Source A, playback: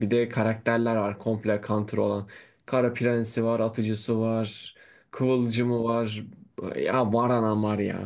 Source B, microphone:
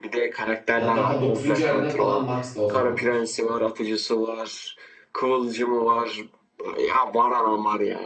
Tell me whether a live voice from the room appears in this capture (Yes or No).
Yes